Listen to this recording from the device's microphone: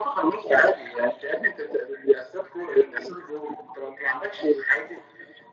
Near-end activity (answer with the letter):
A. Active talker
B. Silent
B